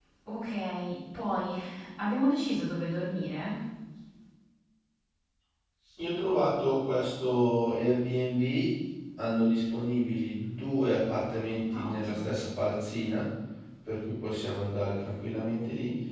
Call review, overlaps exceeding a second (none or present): none